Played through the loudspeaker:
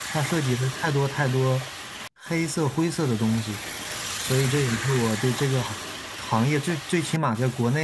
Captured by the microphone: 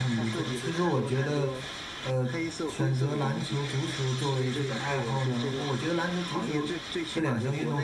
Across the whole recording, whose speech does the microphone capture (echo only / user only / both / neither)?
both